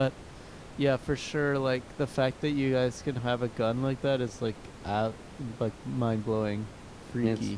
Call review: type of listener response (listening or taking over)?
taking over